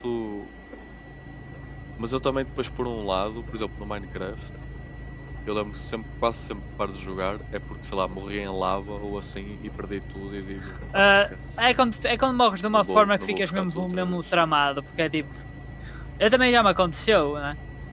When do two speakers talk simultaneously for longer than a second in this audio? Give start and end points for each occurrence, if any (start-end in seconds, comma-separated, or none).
12.7-14.2